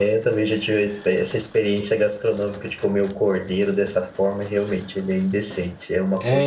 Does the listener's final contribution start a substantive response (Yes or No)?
Yes